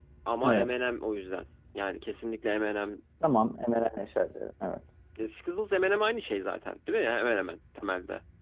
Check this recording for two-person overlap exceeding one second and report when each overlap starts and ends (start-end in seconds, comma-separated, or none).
none